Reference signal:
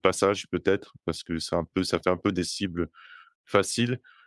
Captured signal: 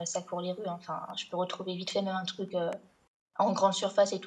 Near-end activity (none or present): present